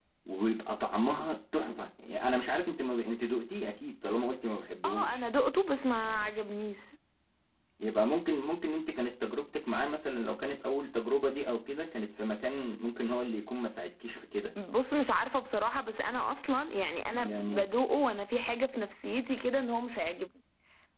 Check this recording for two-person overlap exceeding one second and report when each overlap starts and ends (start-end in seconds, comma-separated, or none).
none